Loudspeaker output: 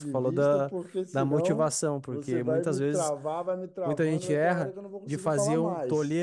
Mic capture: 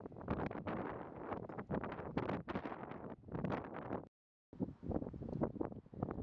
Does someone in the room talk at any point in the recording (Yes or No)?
No